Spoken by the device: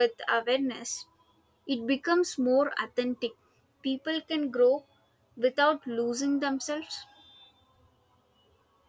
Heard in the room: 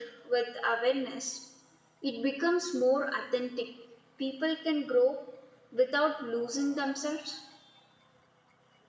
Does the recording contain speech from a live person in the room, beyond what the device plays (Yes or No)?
No